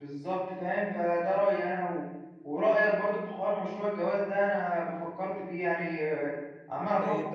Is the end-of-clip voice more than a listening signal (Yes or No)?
Yes